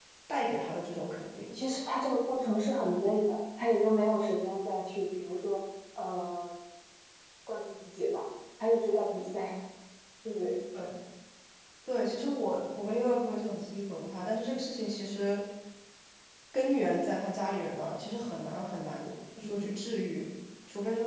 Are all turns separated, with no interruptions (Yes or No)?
Yes